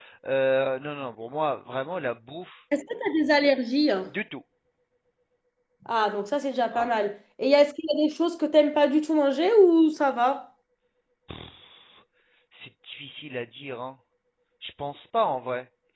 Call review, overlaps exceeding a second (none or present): none